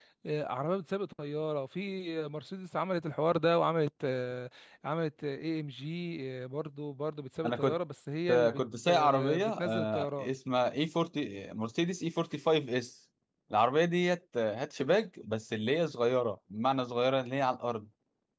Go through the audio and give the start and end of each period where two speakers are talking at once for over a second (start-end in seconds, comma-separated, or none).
8.6-10.3